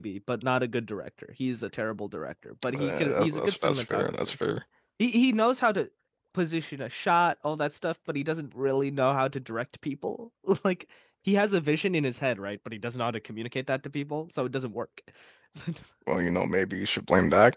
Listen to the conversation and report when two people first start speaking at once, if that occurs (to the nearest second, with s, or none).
3 s